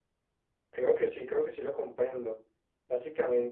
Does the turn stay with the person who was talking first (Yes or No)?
Yes